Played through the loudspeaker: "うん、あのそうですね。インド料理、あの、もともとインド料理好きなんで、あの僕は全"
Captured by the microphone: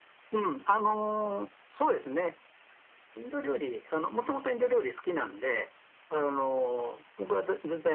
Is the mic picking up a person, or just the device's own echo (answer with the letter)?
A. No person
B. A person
A